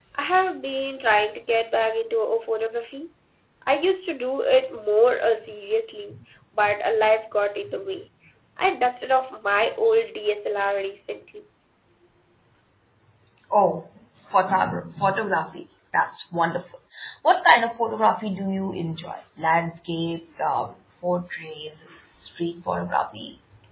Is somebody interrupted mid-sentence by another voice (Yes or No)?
No